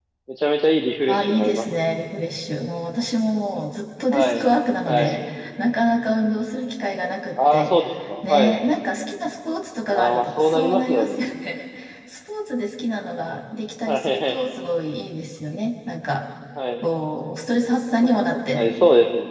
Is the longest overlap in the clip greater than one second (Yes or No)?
Yes